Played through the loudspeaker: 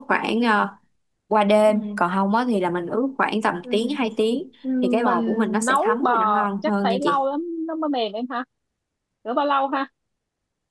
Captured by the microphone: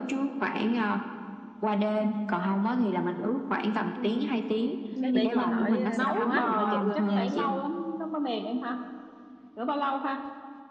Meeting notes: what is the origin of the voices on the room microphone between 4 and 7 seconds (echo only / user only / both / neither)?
both